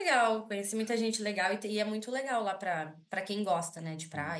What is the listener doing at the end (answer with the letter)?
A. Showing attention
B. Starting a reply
B